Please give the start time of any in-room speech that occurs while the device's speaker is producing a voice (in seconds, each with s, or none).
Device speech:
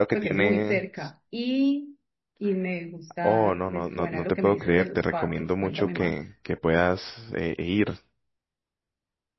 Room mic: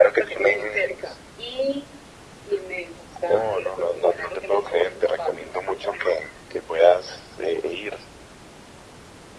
none